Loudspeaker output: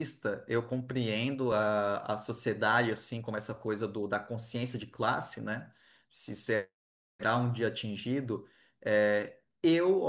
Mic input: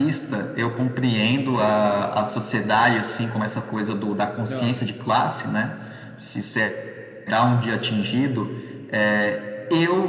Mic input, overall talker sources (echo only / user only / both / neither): both